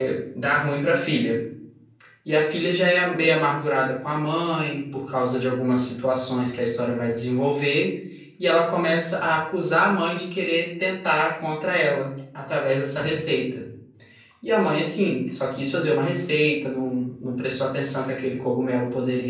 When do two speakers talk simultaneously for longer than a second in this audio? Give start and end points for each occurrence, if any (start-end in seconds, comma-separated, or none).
none